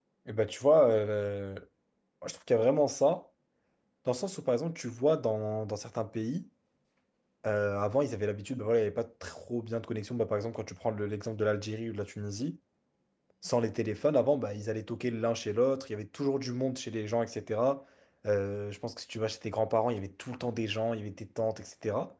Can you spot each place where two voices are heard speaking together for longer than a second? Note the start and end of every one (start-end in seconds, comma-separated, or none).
none